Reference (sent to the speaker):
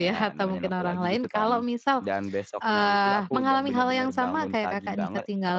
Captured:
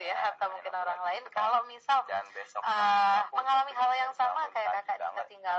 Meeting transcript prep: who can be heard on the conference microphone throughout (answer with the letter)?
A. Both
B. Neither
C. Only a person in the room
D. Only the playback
D